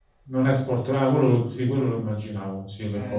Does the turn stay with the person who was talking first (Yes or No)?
No